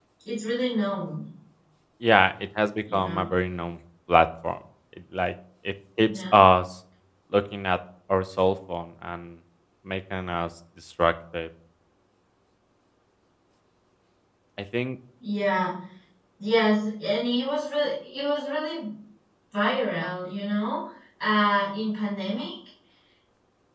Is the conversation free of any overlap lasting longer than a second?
Yes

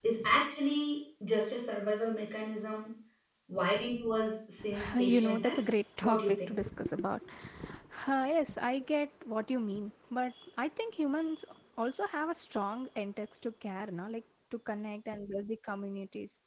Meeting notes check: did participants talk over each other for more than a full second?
Yes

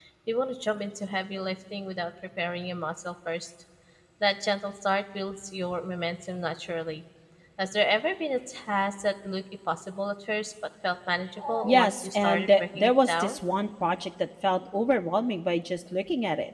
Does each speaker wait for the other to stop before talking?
No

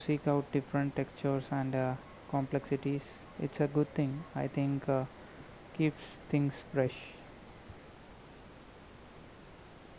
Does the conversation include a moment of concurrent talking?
No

